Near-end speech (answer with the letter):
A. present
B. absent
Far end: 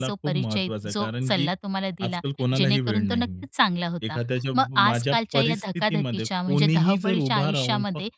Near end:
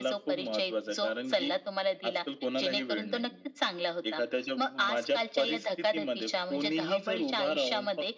B